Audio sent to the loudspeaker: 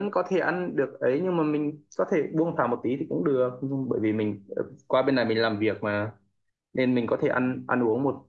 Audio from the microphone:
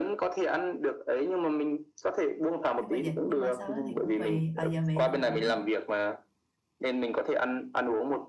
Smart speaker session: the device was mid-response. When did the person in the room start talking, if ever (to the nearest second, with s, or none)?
3 s